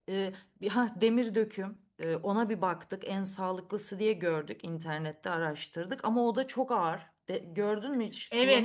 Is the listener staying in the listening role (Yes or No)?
No